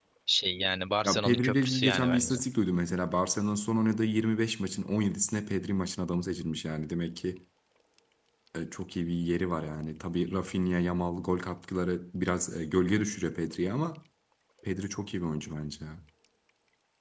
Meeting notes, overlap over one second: present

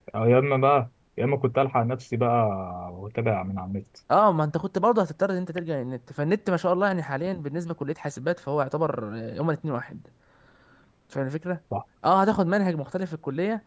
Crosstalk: none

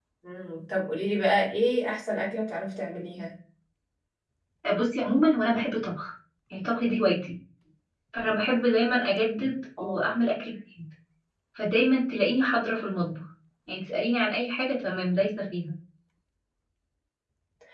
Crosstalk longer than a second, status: none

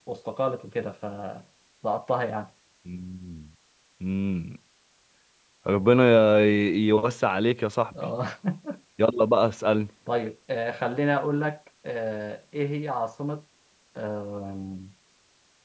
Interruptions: none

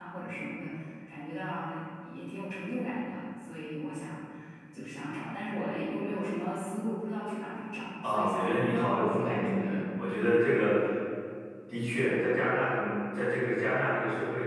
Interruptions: present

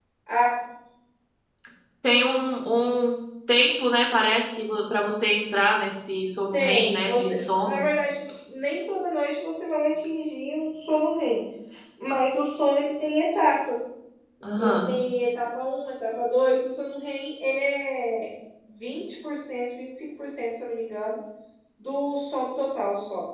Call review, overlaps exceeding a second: present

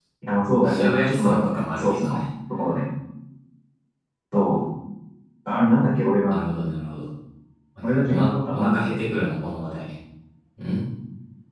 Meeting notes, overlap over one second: present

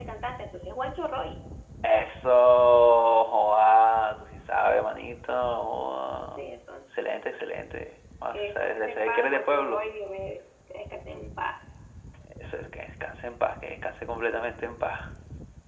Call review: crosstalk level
present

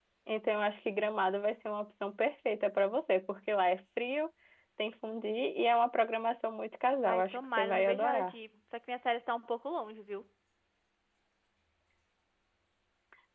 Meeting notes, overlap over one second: present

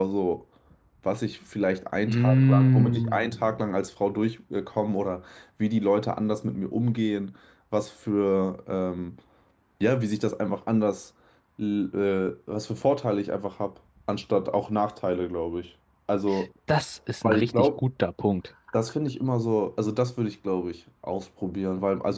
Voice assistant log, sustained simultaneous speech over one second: present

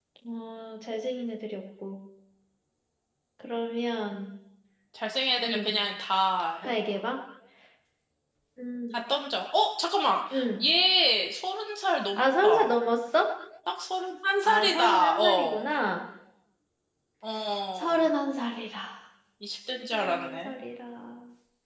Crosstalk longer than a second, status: present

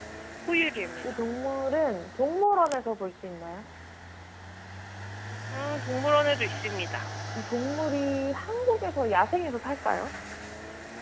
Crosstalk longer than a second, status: none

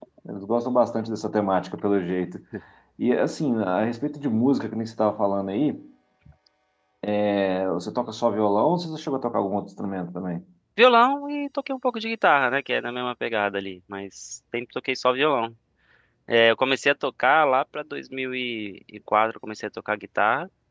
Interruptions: none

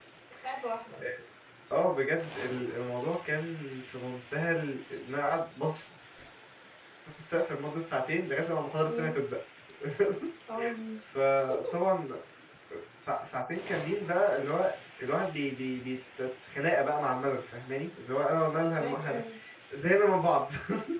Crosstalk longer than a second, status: none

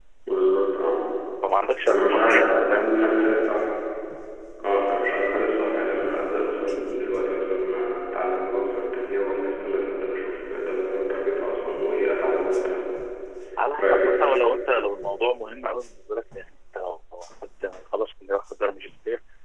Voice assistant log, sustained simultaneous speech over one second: present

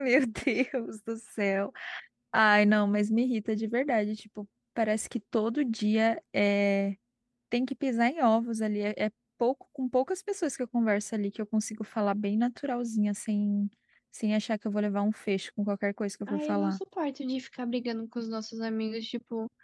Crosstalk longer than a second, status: none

